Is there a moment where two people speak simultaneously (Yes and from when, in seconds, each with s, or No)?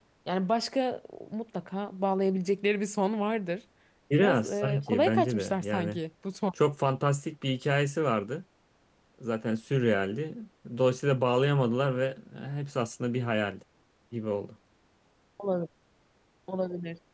Yes, from 4.2 s